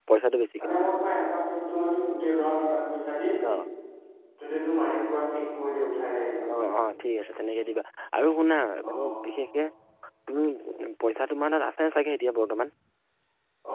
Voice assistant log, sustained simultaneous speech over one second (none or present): none